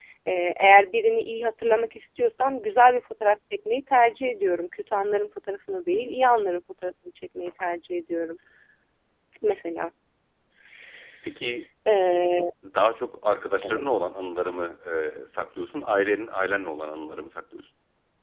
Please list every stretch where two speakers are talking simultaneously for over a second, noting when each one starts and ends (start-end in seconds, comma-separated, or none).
none